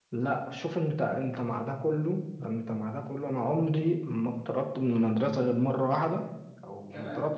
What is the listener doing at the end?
listening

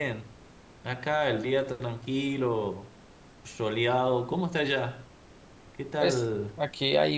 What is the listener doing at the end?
taking over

